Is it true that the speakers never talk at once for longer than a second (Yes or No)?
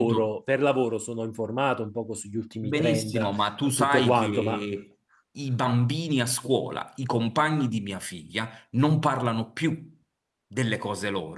No